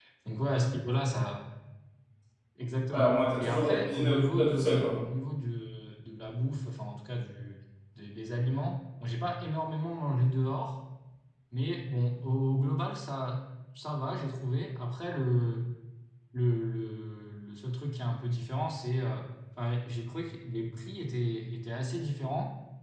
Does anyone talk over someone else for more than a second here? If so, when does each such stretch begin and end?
2.9-5.0

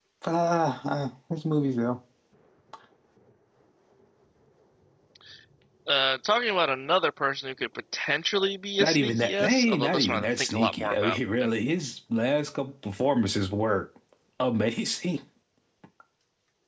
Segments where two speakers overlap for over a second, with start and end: 8.8-11.5

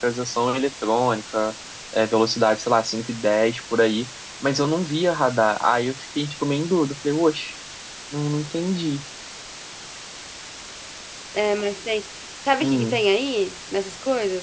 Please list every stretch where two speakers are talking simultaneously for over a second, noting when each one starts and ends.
none

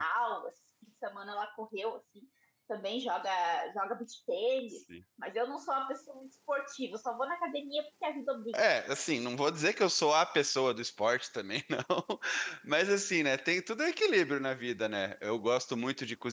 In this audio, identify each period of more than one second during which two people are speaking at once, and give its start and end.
none

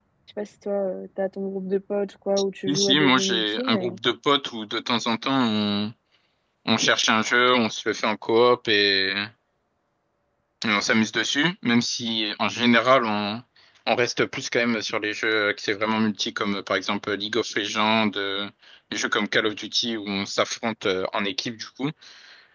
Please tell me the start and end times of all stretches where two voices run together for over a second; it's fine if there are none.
2.7-4.0

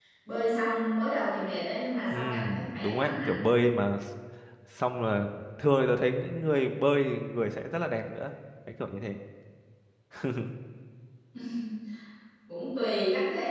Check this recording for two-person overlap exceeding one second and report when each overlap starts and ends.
2.1-3.4

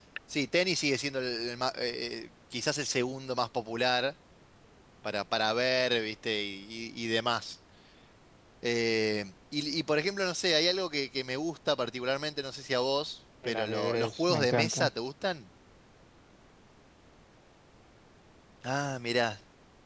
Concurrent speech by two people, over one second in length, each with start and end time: 13.4-14.9

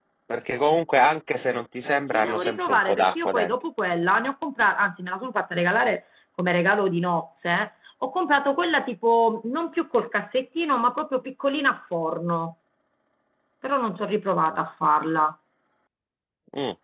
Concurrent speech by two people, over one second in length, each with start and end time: 2.1-3.5

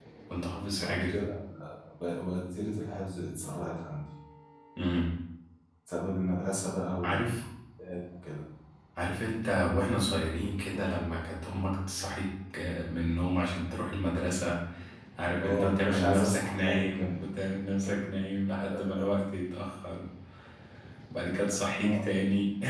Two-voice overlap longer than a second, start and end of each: 15.4-17.1

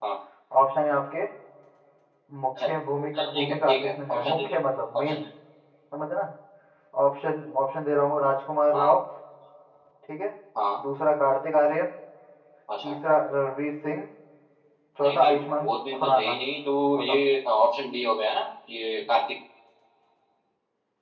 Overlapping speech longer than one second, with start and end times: 3.2-4.6, 15.0-16.4

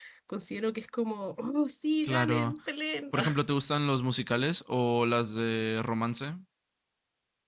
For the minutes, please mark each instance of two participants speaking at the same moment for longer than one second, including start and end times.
none

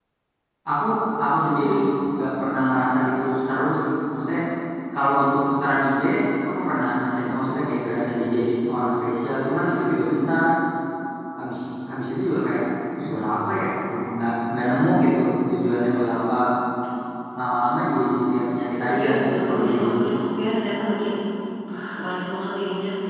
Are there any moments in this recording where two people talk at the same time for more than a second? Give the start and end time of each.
18.8-20.0

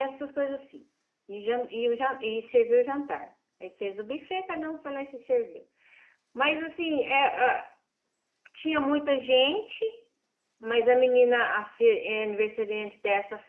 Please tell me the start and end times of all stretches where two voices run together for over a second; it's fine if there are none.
none

